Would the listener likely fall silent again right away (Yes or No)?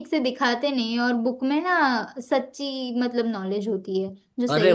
No